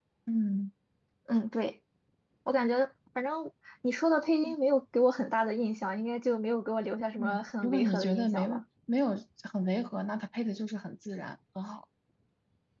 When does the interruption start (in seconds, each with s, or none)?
7.2 s